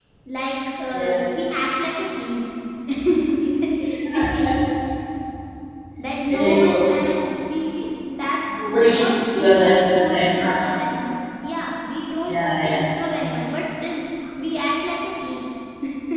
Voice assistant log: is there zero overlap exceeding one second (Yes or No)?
No